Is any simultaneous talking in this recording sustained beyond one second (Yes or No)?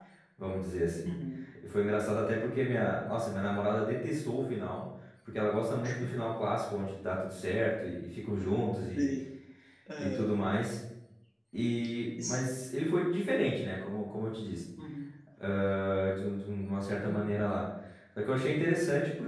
No